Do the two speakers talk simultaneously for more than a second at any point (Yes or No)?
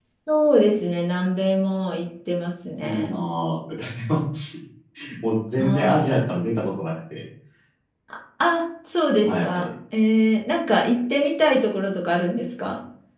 No